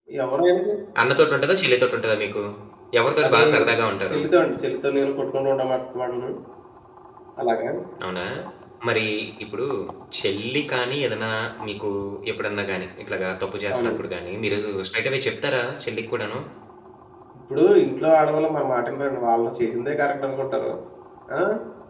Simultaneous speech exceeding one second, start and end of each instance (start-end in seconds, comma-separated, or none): none